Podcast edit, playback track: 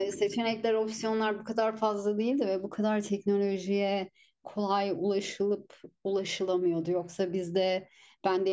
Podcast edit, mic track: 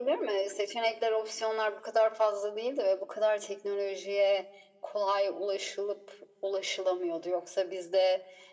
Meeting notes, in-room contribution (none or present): none